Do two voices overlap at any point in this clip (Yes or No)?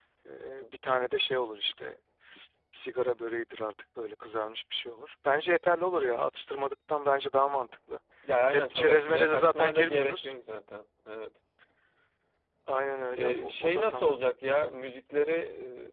Yes